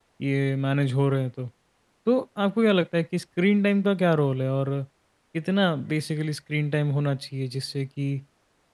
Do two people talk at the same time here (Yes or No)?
No